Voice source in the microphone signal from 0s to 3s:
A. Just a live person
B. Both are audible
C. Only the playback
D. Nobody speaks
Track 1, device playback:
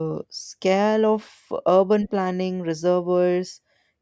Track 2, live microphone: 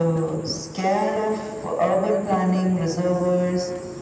C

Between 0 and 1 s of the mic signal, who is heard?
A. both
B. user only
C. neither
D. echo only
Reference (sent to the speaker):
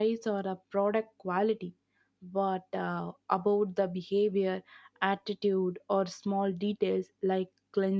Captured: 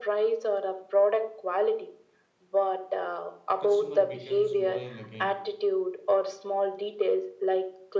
D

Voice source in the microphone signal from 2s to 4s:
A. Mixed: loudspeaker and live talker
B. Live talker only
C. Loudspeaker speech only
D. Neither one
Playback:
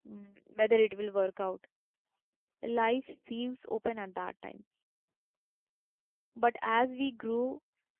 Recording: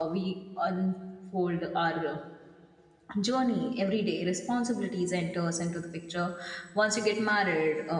B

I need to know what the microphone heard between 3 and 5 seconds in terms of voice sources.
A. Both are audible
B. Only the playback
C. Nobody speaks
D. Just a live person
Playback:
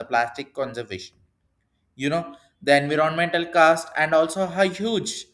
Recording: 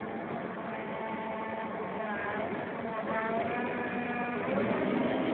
C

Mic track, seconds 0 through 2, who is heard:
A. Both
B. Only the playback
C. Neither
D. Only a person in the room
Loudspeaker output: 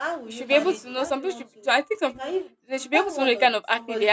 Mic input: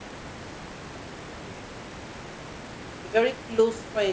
C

